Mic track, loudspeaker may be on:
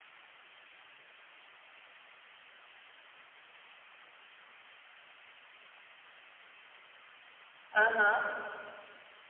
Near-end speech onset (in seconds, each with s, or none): 7.8 s